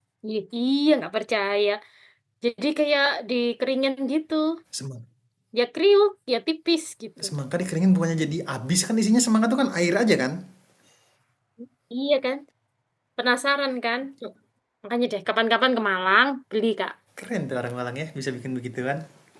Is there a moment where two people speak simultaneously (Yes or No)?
No